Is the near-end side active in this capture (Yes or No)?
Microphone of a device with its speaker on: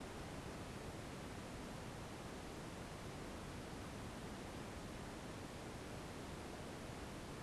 No